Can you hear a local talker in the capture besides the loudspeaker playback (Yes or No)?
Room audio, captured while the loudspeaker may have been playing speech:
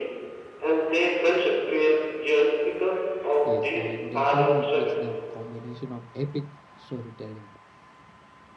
Yes